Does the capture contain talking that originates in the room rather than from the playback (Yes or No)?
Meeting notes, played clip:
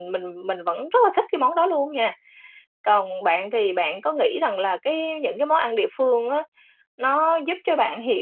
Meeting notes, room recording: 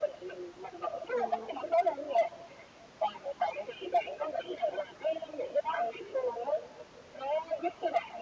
Yes